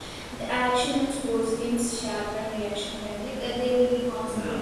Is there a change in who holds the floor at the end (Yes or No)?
No